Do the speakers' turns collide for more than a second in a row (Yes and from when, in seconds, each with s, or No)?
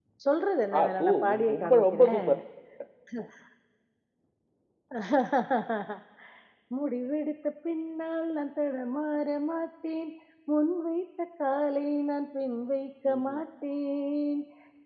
Yes, from 0.8 s